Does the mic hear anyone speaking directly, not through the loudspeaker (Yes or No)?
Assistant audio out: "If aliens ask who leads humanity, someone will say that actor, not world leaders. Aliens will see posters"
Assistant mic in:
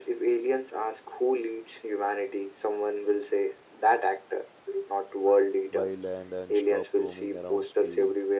Yes